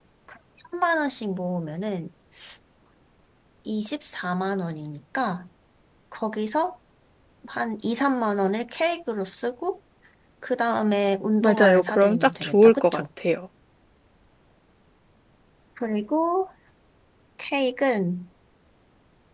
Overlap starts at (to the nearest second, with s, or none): 11 s